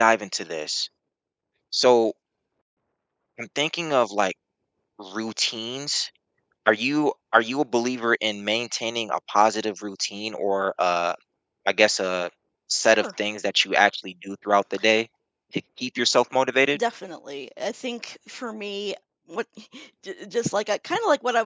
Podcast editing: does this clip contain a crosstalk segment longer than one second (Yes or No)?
No